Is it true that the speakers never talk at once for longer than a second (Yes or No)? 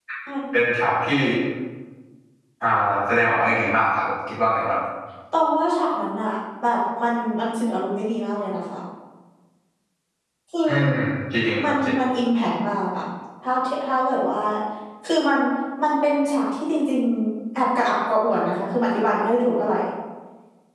Yes